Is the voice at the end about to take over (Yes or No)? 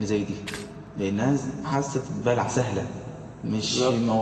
No